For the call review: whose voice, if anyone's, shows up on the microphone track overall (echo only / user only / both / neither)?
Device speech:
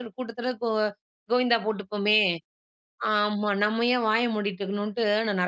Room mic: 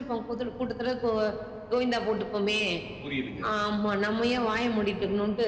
both